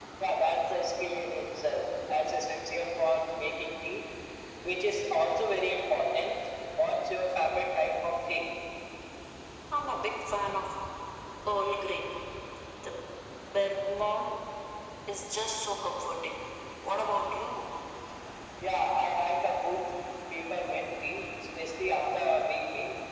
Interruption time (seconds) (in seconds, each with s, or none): none